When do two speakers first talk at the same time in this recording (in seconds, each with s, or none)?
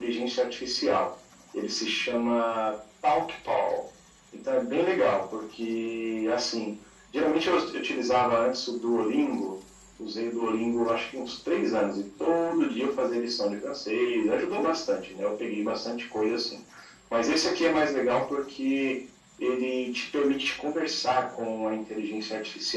none